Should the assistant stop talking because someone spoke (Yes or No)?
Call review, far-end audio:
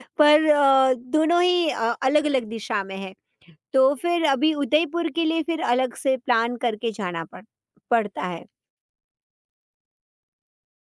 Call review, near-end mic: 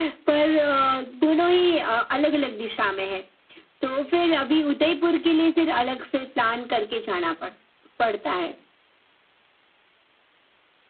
No